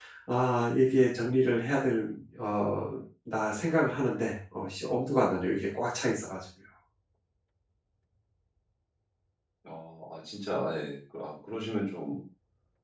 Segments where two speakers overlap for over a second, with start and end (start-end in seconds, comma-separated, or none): none